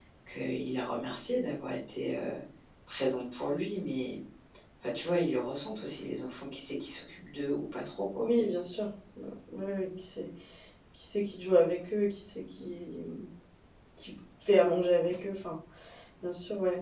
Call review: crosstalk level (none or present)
none